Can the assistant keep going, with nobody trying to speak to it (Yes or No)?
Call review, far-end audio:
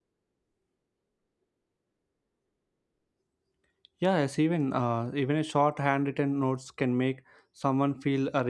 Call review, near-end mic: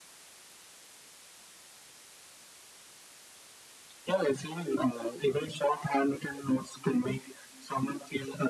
Yes